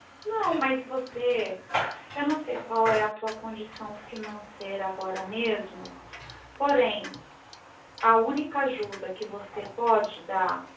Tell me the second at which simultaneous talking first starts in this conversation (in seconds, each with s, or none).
none